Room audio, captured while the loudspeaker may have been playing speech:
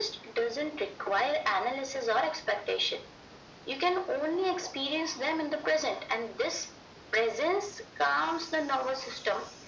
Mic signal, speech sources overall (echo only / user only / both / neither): echo only